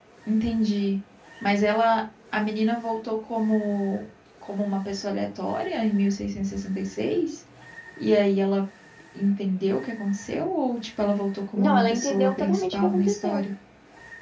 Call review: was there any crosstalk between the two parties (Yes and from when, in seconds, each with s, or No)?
Yes, from 11.6 s